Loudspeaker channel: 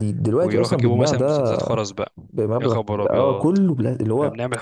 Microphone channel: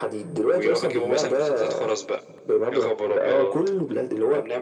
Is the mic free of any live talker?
Yes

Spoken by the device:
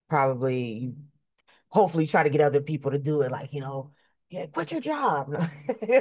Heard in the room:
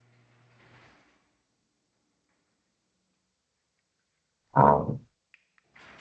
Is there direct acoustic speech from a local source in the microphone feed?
Yes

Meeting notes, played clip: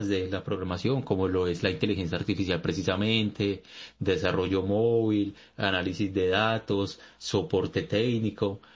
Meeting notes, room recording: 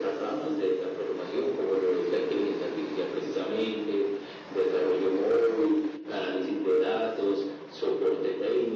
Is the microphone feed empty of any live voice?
Yes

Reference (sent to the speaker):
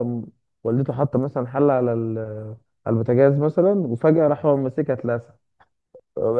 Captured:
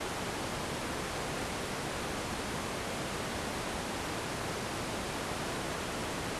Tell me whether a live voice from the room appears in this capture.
No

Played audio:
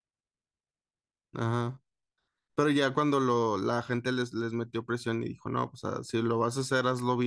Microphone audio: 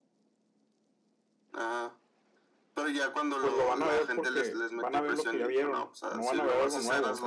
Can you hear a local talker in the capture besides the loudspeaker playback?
Yes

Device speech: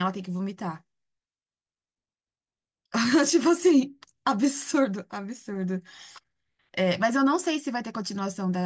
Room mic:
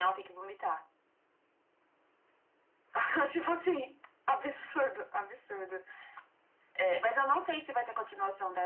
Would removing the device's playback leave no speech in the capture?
Yes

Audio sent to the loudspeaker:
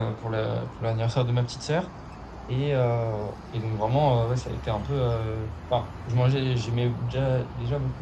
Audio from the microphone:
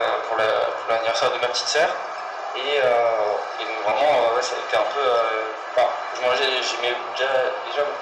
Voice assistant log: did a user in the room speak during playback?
No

